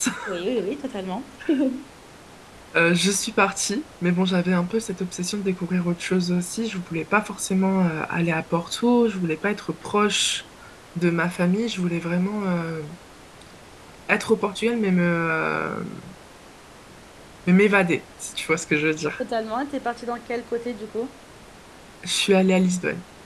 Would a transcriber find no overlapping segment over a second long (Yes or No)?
Yes